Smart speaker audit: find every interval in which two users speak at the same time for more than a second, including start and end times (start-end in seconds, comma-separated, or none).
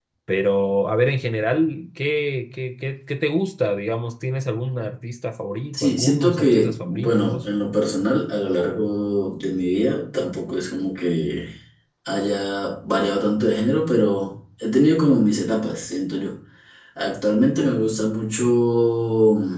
5.7-7.4